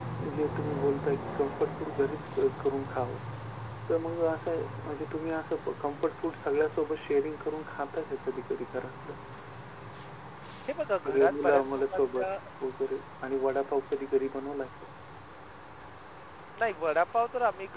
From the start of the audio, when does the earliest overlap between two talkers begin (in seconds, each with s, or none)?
11.1 s